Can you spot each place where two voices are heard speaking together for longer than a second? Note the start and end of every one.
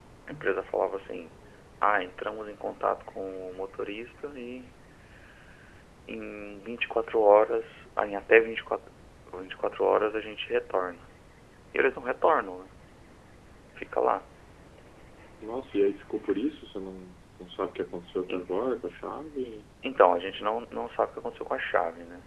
none

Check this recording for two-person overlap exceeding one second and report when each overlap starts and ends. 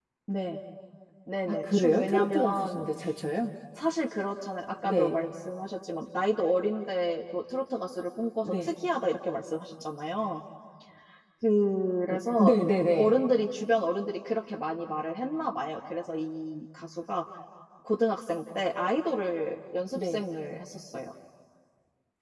1.5-2.9

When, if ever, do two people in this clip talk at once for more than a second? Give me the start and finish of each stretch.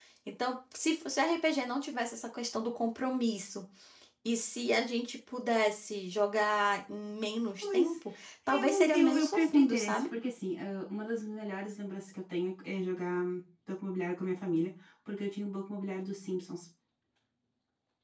8.5-10.0

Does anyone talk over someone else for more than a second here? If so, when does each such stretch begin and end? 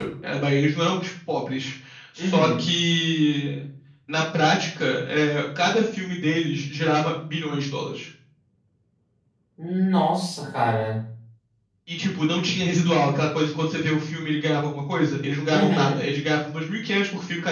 none

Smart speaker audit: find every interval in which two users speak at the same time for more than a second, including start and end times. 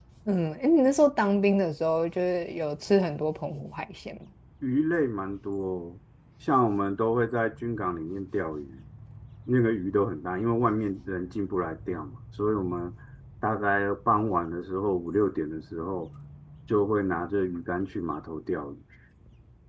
none

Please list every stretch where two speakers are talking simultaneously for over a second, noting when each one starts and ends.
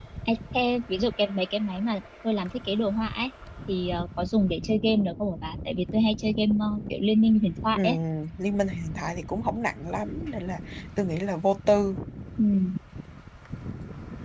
none

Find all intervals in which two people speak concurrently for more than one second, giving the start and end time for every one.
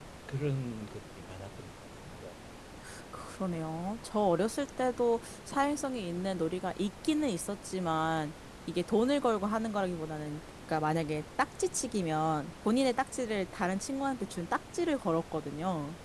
none

